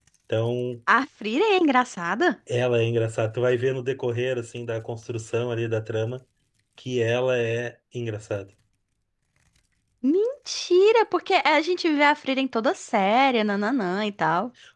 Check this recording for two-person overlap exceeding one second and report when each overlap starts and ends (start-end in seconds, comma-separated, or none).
none